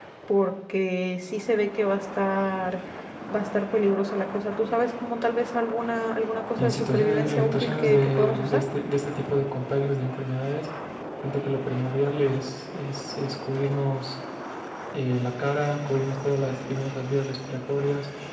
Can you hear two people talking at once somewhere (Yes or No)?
Yes